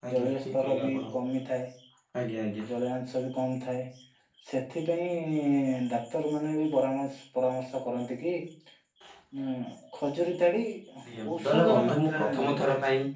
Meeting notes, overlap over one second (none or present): present